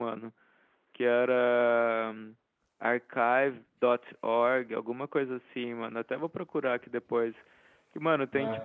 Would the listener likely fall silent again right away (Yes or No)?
Yes